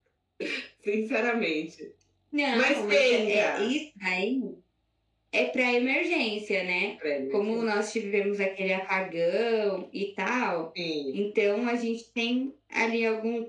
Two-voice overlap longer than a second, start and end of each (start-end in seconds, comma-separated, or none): 2.5-3.7